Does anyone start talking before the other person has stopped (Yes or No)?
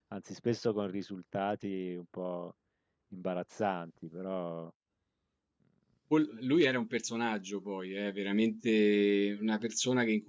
No